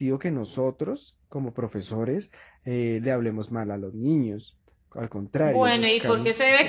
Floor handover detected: Yes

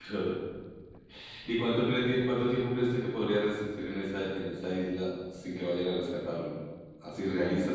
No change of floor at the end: Yes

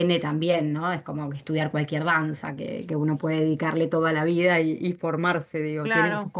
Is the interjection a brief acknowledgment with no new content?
No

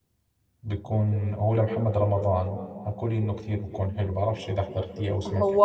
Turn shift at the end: Yes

